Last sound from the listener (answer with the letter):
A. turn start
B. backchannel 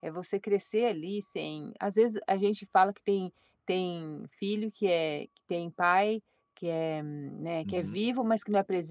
B